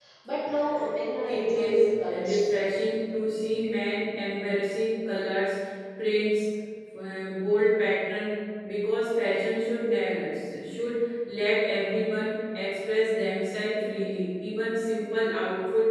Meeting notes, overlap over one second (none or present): present